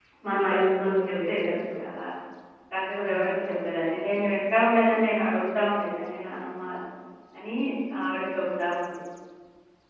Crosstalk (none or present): present